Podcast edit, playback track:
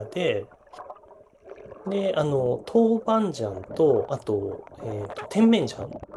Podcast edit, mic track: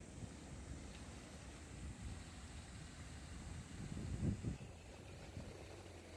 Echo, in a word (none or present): none